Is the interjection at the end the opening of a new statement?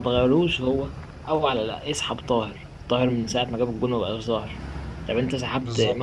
No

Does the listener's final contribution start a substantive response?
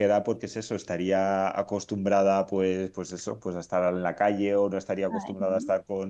No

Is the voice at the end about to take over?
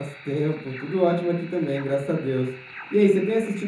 No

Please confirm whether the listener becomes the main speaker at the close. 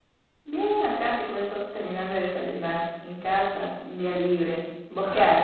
Yes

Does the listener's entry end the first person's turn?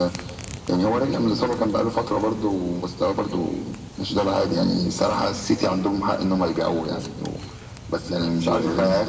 No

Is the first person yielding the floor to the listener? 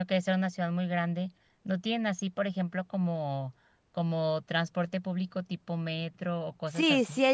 Yes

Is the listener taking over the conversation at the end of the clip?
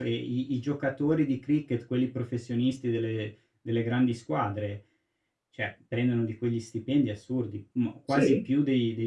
No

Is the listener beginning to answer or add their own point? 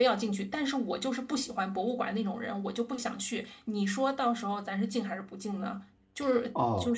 Yes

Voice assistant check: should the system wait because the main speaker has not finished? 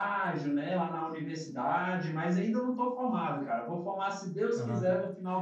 Yes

